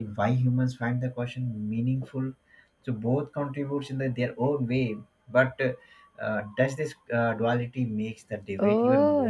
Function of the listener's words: taking over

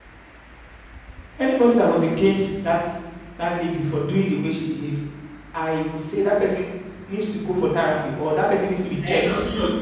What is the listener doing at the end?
taking over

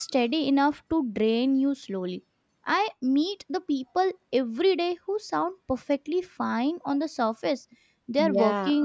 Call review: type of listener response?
listening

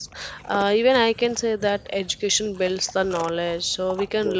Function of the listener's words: listening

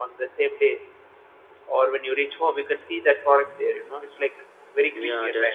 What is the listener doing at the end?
taking over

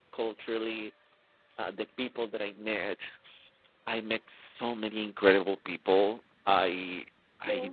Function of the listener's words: listening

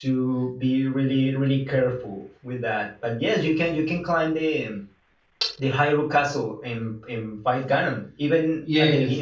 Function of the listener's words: taking over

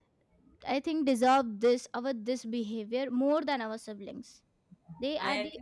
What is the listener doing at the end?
listening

